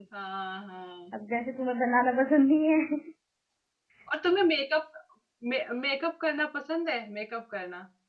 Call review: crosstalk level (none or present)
none